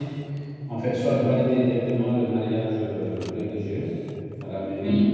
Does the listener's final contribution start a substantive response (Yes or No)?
No